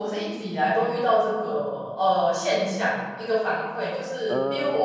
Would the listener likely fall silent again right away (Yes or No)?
Yes